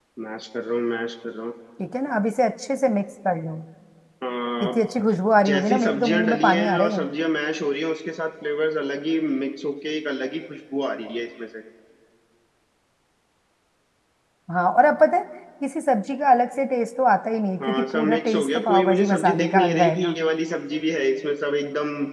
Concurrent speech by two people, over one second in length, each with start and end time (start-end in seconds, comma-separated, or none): 5.5-7.0, 17.6-20.2